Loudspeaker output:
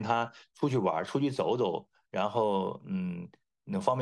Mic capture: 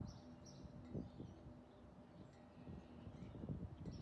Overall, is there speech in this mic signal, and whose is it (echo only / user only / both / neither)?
neither